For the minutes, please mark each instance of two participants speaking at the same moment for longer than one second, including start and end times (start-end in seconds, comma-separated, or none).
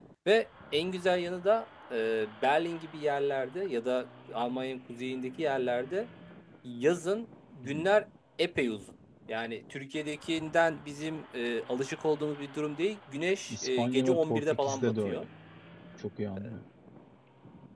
13.5-15.2